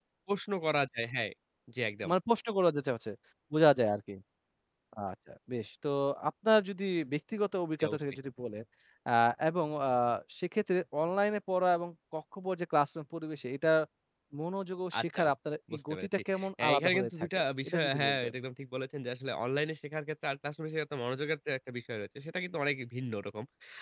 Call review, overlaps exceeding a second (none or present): present